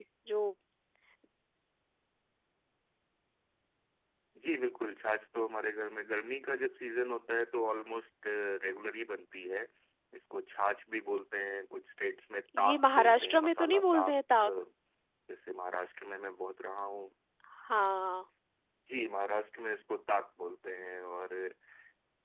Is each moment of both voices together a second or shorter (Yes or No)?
No